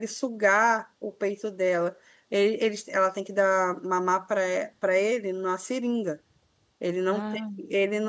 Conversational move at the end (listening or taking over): listening